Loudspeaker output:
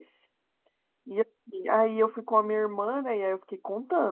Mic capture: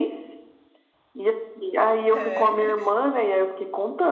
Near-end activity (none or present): present